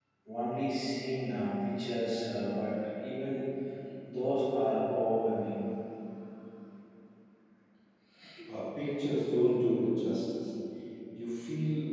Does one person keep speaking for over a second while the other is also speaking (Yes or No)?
No